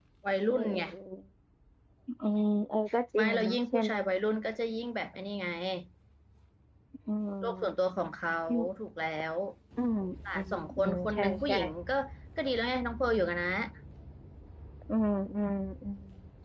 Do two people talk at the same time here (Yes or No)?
Yes